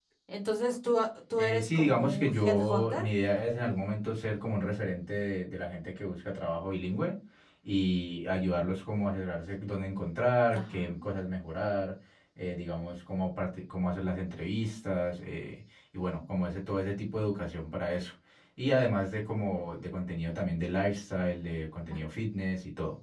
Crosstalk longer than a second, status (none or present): present